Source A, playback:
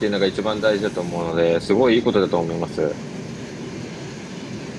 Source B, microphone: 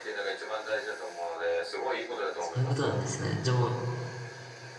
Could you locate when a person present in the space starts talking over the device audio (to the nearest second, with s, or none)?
2 s